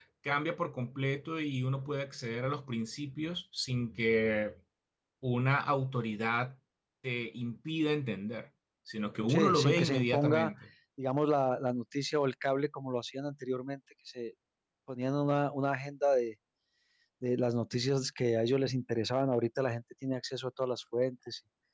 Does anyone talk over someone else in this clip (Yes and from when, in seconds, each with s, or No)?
Yes, from 9.3 s